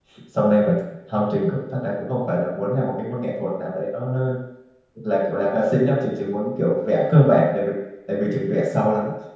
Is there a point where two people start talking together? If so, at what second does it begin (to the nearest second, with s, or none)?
none